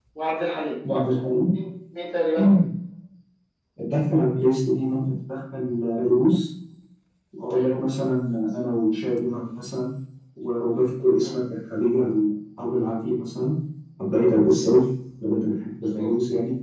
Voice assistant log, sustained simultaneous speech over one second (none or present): none